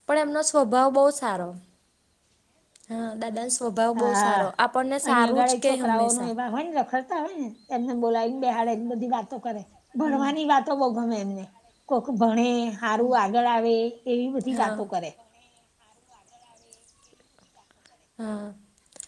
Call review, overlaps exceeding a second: present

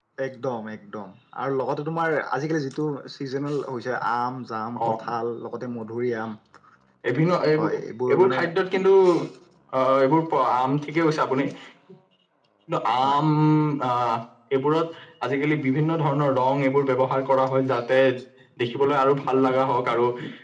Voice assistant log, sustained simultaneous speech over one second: none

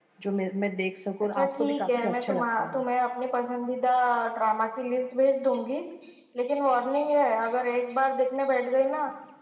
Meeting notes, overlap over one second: present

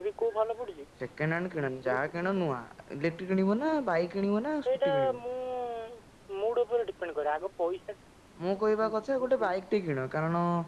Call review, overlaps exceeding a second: none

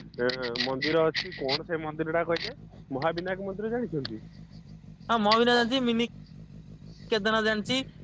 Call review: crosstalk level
none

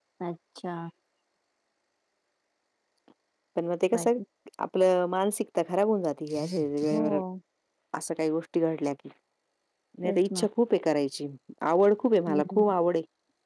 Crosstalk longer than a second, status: none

